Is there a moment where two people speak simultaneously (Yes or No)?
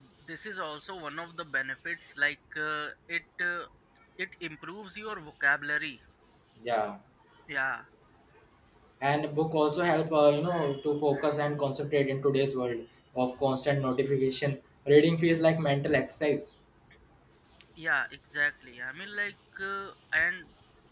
No